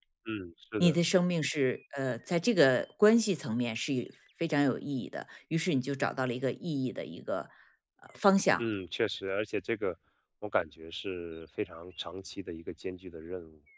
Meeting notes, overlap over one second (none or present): none